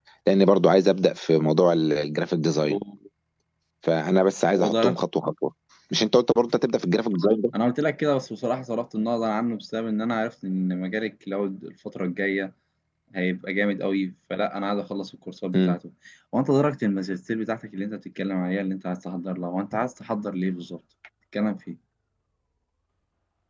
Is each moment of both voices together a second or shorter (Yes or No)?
Yes